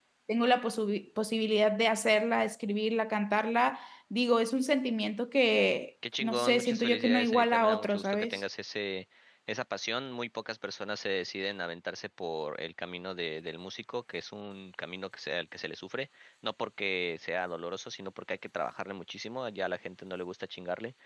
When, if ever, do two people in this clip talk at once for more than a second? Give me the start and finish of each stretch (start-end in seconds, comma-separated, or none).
6.2-8.4